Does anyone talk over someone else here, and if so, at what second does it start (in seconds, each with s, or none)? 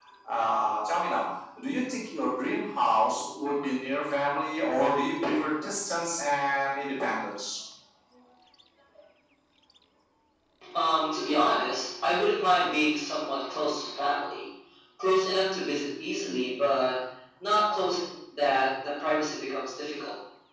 none